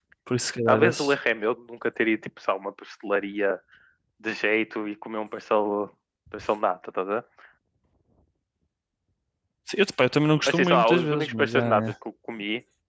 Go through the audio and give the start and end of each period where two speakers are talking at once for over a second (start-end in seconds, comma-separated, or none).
10.4-11.8